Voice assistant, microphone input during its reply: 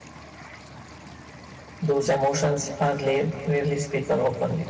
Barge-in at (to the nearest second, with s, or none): 2 s